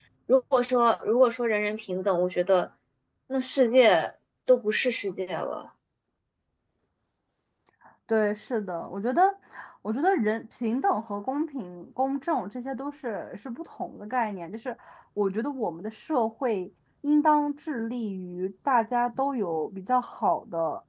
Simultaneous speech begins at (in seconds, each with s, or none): none